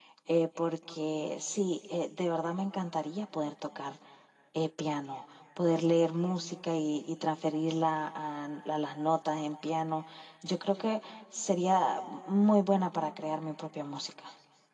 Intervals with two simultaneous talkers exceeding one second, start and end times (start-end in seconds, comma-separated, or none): none